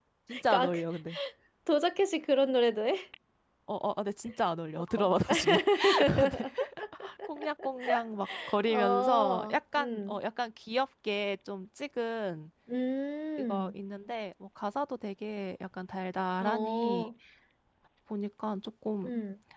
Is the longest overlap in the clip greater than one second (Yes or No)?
Yes